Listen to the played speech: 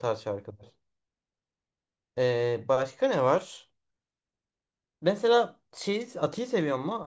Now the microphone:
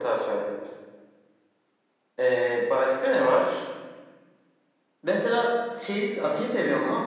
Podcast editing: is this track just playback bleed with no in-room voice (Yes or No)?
Yes